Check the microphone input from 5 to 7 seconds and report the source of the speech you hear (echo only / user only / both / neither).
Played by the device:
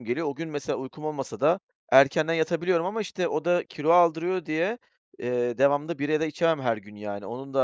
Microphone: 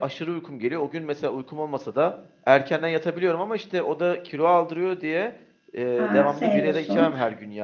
both